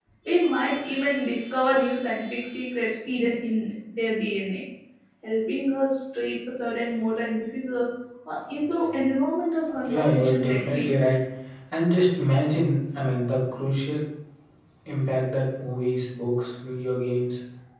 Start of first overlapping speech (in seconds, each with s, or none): 9.8 s